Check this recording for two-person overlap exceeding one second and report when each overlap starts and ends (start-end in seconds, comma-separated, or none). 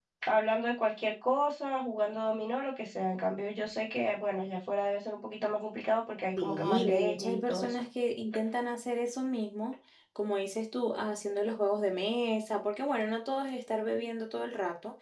6.4-7.8